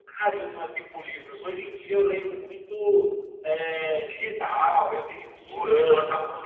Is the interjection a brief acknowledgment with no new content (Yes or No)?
Yes